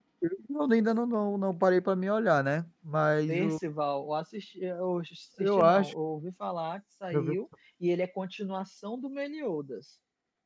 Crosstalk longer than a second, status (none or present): none